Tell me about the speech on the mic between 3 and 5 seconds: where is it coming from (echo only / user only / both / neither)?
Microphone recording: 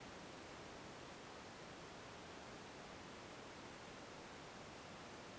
neither